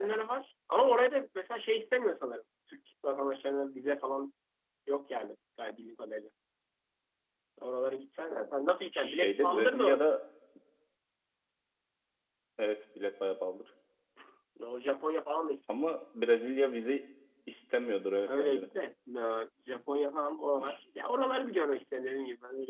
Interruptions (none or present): present